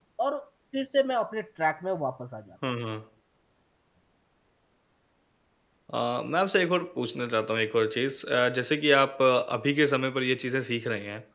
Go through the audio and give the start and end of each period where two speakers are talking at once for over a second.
none

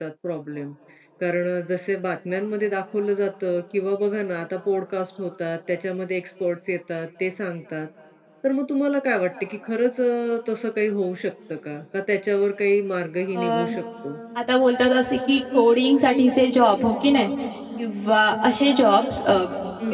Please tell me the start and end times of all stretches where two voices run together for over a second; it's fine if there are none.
none

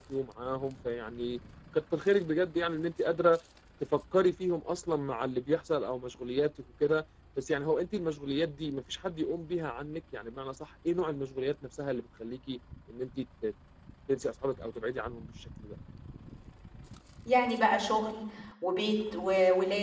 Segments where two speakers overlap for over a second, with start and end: none

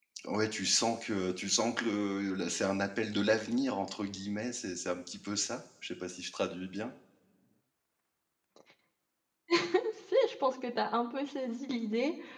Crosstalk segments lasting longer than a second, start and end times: none

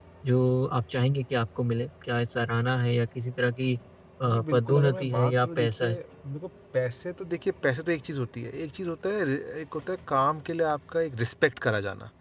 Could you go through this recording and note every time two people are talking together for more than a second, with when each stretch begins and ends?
4.2-6.0

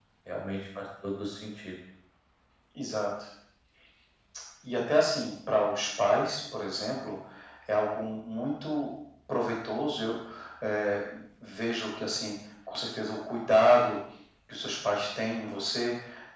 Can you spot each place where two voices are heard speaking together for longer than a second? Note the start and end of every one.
none

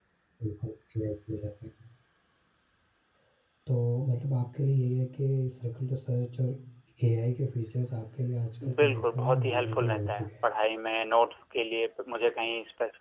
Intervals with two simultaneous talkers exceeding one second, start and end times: 8.8-10.5

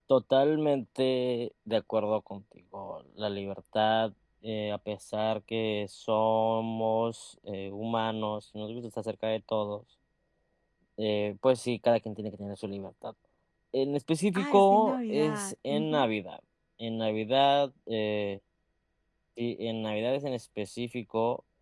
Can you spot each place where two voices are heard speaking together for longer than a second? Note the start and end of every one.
14.4-16.1

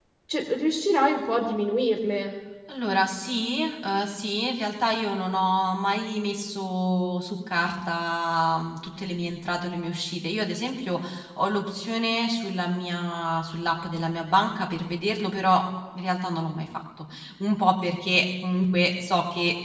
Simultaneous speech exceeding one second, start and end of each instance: none

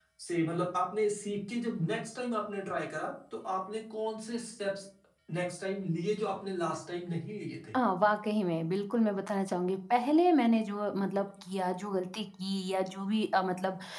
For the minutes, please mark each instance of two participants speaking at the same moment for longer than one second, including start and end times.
none

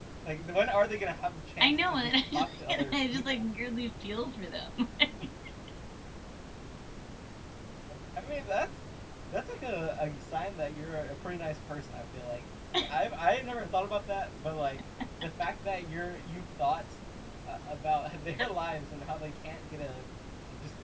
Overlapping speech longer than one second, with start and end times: 1.6-3.4

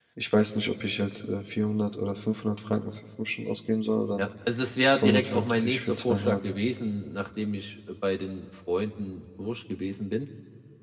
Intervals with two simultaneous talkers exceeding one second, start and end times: 4.9-6.4

